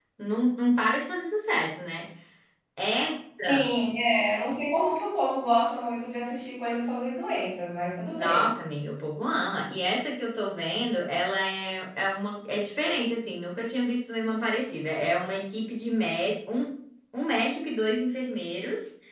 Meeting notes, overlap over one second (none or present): none